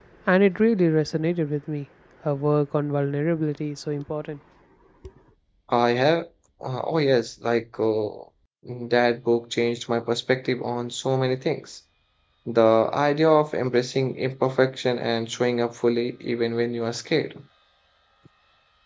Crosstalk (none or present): none